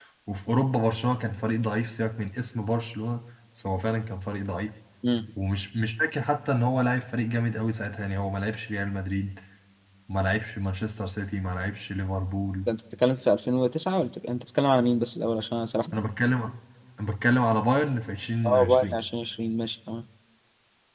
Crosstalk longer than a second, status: none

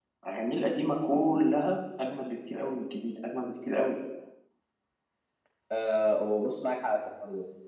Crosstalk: none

